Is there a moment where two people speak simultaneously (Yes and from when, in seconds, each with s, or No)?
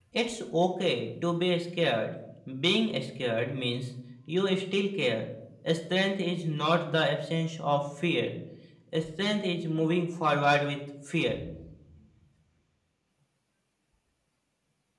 No